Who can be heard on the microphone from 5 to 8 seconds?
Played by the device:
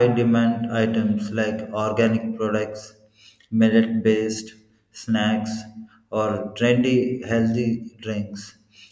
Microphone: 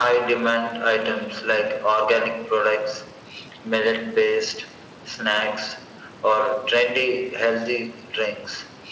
echo only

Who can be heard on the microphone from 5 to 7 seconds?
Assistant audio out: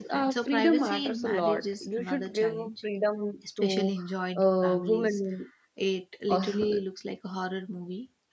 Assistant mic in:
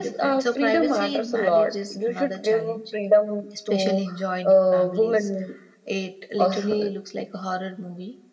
echo only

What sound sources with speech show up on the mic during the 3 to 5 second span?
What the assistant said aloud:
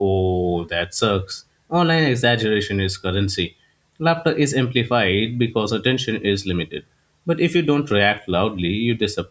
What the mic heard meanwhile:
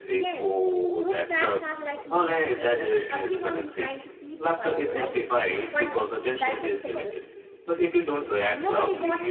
both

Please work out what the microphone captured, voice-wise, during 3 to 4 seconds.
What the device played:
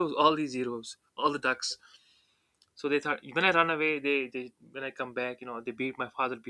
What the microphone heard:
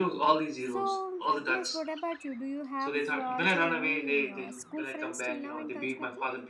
both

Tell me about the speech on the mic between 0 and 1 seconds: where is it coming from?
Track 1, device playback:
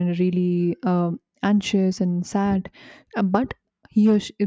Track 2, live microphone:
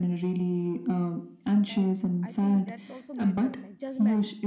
echo only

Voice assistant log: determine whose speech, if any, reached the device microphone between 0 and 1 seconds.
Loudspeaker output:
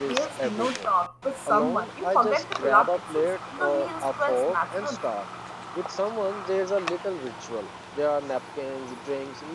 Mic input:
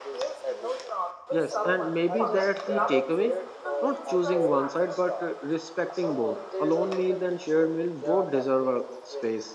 echo only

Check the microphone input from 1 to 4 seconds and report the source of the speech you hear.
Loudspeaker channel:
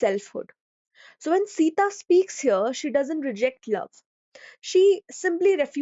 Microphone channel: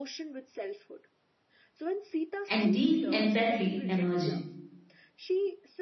both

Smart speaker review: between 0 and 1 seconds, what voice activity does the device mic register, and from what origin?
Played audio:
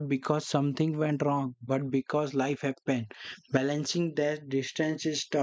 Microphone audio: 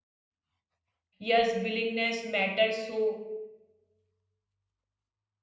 neither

